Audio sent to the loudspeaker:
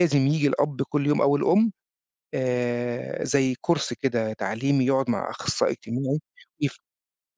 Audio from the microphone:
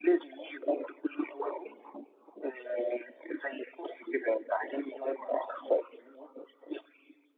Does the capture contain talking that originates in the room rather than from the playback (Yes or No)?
No